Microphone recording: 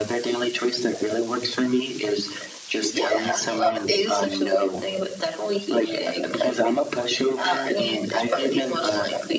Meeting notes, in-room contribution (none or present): none